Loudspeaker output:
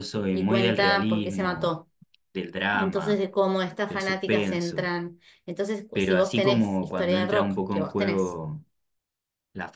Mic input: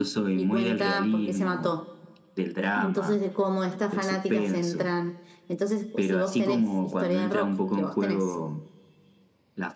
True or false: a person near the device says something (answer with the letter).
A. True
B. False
B